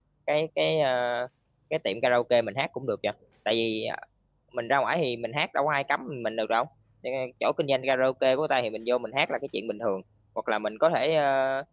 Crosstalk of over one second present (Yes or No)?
No